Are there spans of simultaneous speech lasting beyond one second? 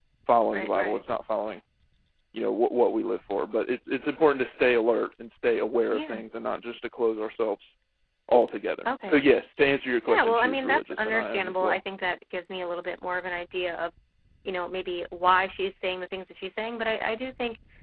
Yes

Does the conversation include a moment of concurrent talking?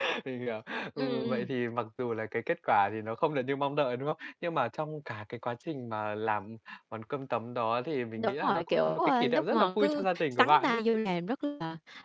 Yes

